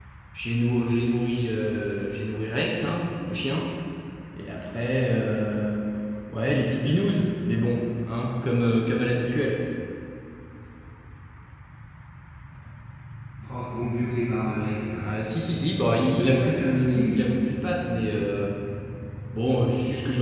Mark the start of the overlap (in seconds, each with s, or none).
16.1 s